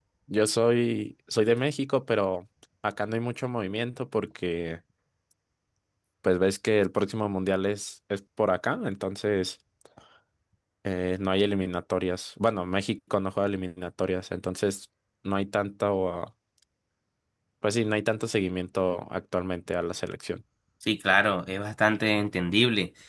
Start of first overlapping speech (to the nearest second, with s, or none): none